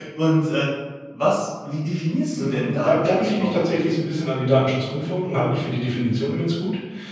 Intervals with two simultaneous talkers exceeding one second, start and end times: 2.4-3.7

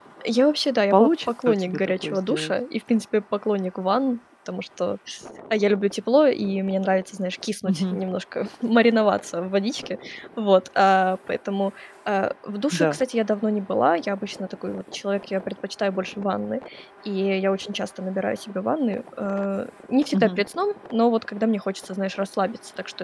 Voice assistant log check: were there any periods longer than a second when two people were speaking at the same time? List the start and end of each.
0.9-2.5

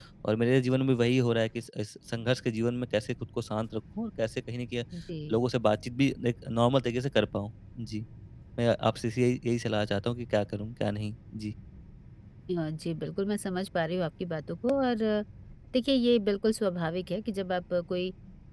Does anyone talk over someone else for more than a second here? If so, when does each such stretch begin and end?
none

